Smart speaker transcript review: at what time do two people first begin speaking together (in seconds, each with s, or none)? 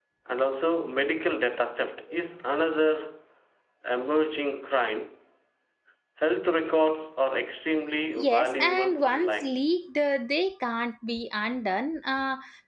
8.2 s